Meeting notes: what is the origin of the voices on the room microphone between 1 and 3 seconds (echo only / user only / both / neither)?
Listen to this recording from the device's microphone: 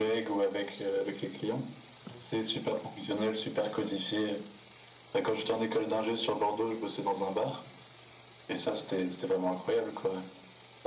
echo only